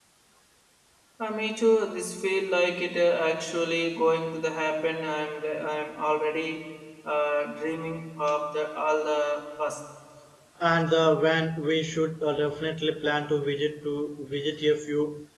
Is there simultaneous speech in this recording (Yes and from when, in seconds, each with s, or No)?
No